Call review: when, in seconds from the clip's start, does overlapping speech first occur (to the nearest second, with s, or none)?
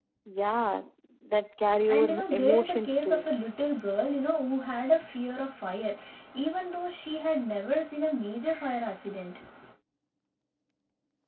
2 s